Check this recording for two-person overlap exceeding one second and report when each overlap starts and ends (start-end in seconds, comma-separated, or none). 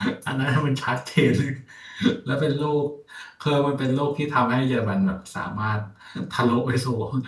none